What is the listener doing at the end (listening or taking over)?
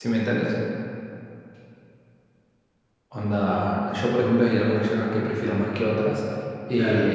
listening